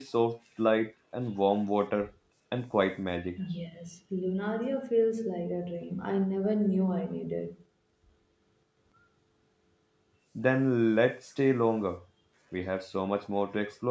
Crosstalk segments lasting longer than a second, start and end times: none

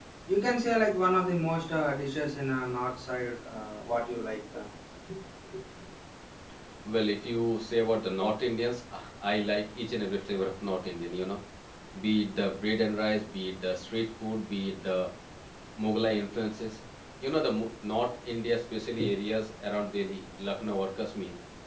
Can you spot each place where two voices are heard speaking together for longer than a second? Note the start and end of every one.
none

